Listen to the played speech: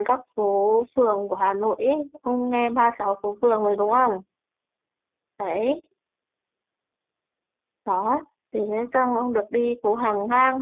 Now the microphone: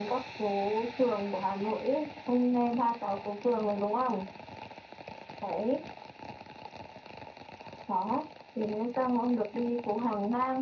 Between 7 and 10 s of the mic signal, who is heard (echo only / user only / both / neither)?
echo only